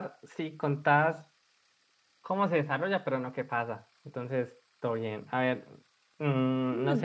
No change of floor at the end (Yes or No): Yes